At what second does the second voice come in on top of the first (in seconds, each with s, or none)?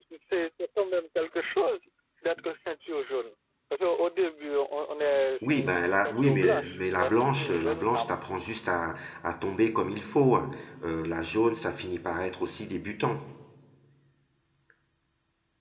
5.4 s